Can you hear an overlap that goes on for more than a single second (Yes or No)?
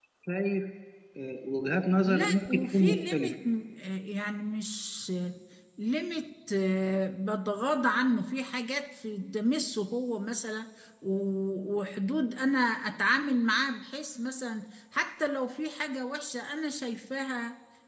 Yes